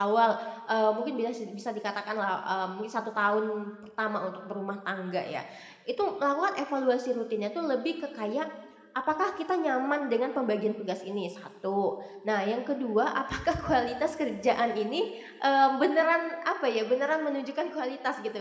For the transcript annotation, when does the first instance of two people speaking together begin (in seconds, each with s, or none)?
none